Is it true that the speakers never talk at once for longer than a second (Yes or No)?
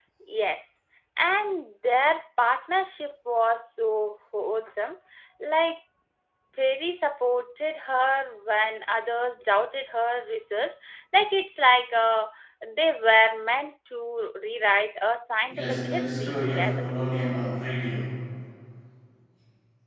No